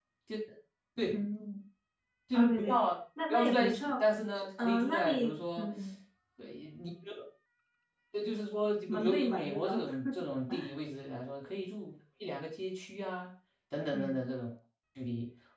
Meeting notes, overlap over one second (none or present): present